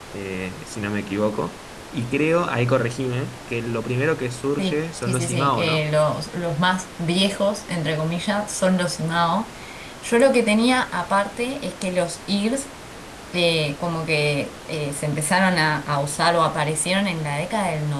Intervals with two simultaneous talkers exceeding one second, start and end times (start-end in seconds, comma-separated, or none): 4.6-5.8